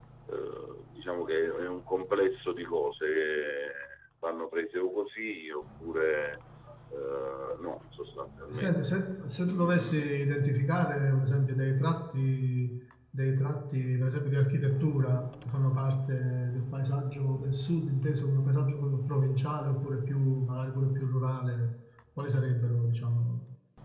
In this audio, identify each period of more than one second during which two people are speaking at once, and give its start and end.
none

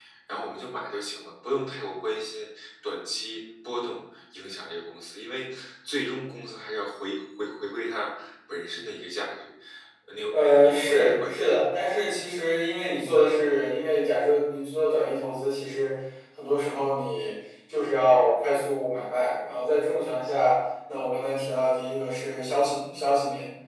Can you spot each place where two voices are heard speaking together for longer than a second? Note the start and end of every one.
10.3-11.6

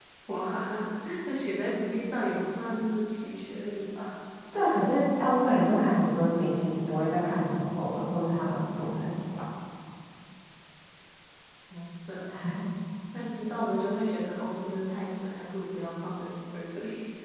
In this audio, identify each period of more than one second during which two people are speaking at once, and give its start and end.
none

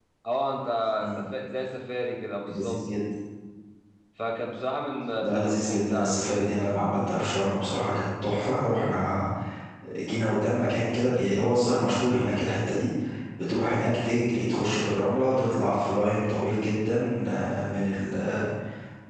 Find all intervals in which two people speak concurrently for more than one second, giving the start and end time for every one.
5.2-6.5

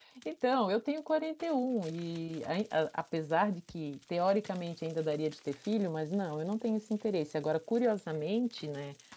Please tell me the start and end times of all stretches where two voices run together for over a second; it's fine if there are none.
none

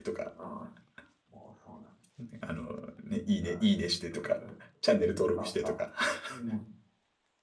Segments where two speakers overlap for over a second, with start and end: none

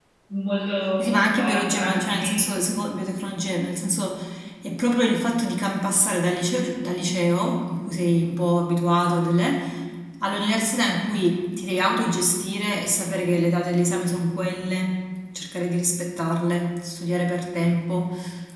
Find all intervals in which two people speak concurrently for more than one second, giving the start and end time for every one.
1.0-2.5

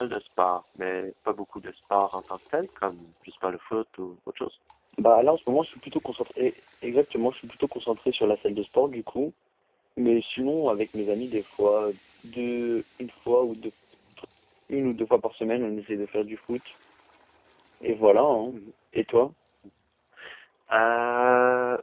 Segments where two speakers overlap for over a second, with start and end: none

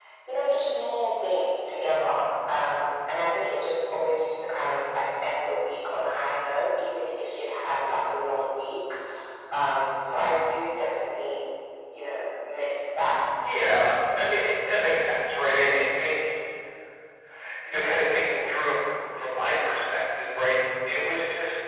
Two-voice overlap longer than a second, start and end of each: none

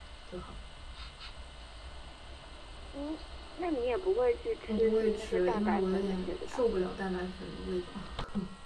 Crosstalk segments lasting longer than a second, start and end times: 4.7-6.7

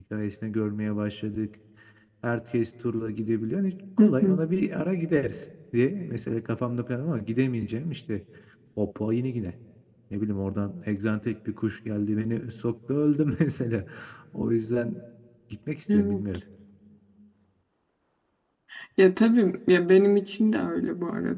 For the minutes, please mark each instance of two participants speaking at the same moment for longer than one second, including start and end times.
none

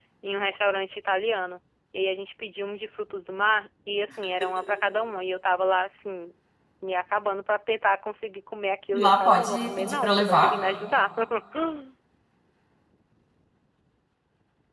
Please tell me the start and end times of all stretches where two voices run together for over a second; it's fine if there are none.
8.9-10.5

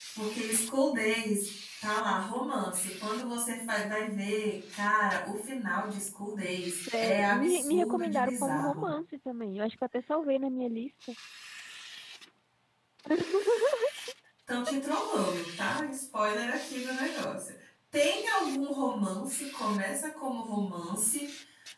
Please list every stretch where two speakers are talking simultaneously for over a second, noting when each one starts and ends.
7.0-8.8

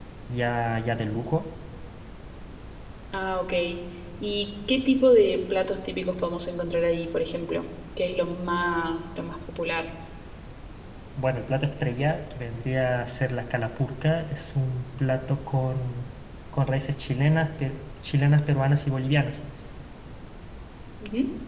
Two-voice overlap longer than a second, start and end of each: none

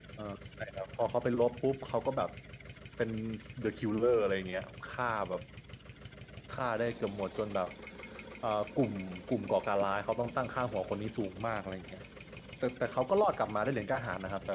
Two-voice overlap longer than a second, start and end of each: none

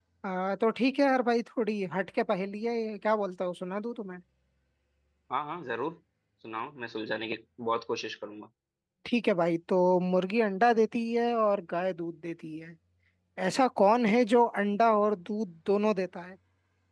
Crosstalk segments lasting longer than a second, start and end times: none

